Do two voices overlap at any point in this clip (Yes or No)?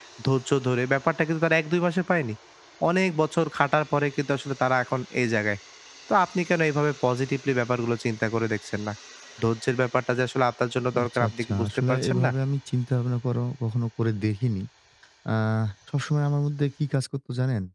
Yes